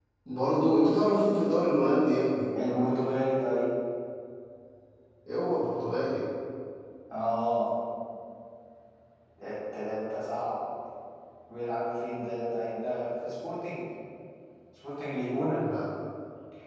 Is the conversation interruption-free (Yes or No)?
Yes